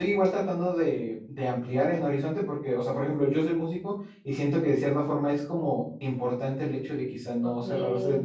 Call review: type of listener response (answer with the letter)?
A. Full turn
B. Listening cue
B